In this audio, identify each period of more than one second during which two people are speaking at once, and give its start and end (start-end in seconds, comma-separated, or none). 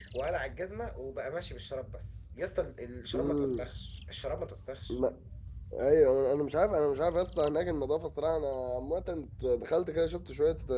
none